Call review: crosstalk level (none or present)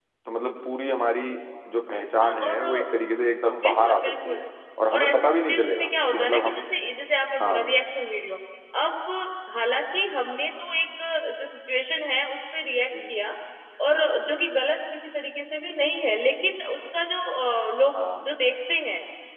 present